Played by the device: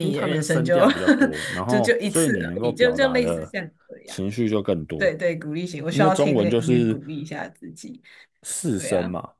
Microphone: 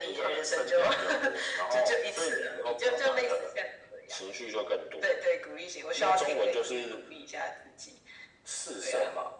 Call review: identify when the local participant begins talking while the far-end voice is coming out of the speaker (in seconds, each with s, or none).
none